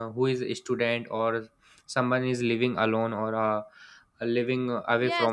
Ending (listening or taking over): taking over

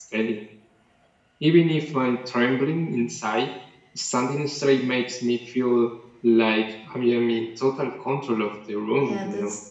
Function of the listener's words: taking over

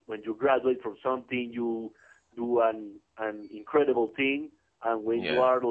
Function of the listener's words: listening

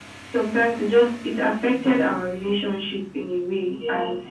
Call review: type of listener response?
taking over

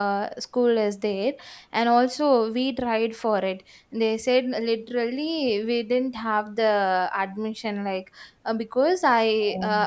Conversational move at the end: listening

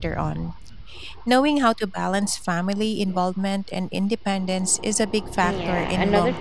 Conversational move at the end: taking over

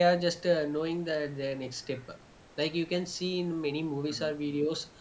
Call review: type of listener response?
listening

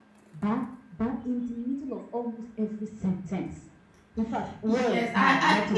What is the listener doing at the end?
taking over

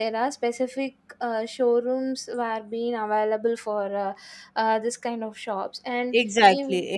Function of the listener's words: taking over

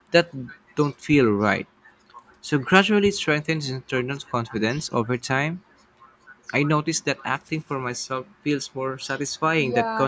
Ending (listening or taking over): taking over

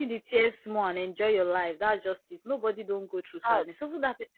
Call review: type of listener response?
listening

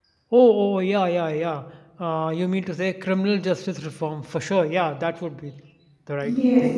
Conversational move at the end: taking over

